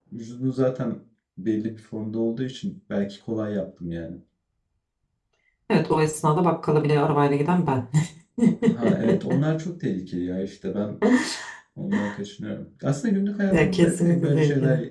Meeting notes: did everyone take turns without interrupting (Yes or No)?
No